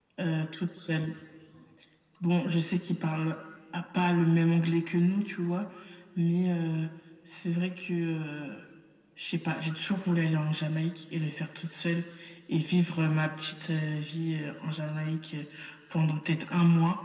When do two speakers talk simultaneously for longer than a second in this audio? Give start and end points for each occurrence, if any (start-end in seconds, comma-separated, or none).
none